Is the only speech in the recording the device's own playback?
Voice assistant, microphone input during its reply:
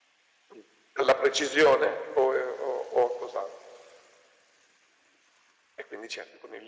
Yes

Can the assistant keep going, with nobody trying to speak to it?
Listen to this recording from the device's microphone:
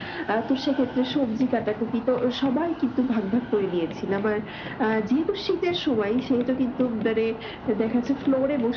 Yes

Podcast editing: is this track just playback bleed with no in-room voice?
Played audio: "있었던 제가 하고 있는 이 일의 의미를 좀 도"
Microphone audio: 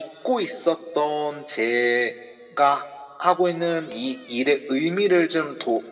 Yes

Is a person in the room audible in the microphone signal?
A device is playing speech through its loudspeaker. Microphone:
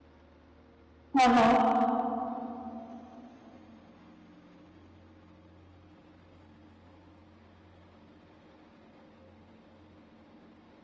Yes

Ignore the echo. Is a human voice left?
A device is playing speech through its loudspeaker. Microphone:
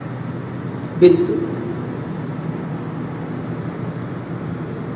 Yes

